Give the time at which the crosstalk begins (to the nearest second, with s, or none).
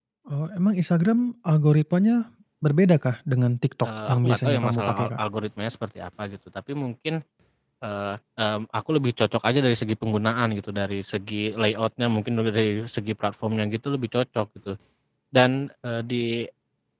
4 s